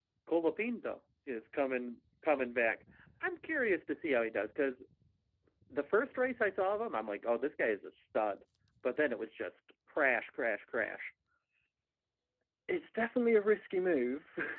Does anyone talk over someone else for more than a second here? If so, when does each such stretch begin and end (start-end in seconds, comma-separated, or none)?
none